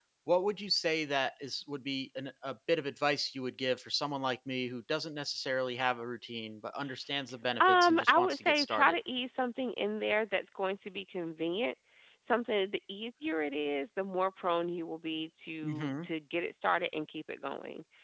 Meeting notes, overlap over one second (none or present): present